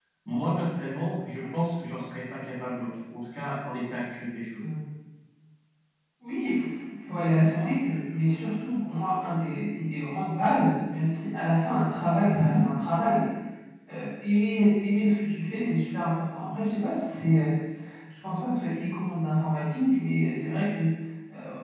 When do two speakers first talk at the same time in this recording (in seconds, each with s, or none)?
none